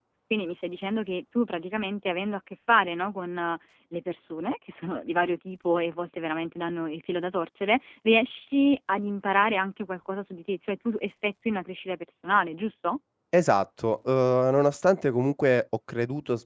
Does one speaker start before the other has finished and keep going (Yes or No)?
No